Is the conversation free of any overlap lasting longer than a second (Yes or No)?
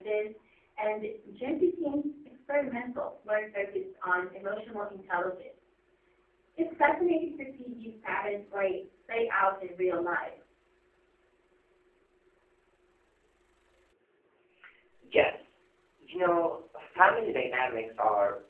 Yes